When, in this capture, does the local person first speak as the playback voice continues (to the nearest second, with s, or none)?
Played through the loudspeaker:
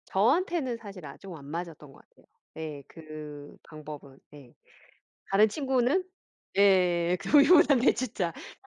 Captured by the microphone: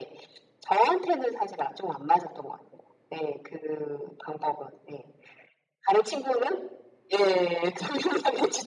none